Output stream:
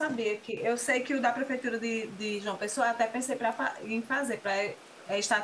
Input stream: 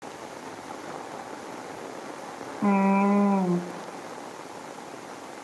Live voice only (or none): Hum,